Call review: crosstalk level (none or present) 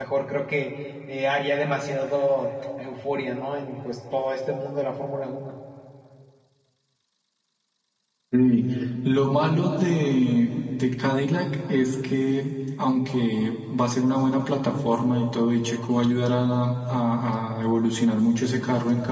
none